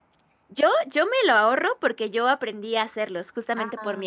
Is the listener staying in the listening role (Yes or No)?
Yes